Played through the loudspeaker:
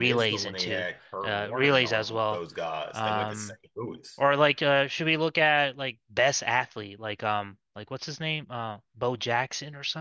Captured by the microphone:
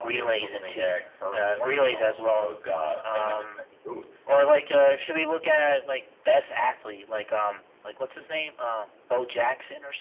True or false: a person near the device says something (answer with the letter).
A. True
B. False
B